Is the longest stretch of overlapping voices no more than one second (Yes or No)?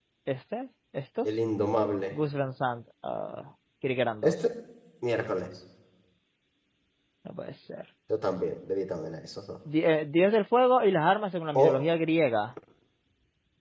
Yes